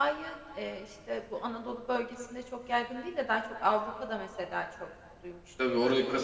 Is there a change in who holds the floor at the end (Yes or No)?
Yes